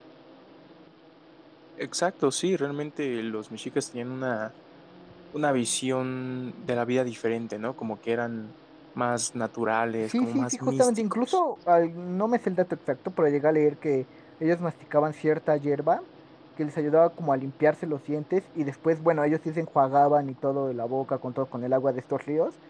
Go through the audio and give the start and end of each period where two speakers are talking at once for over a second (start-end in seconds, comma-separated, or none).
10.0-11.4